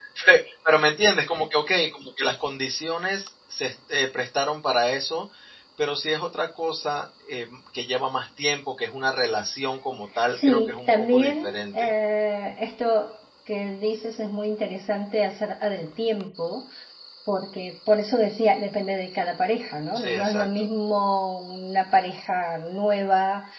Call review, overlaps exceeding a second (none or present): present